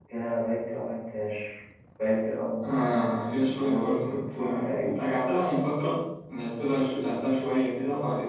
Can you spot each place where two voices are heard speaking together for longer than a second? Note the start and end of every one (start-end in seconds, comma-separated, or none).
3.4-4.9